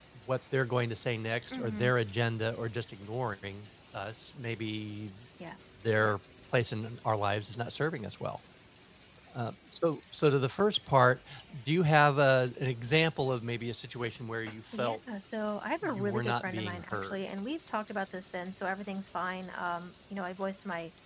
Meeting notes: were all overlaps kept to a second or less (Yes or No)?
No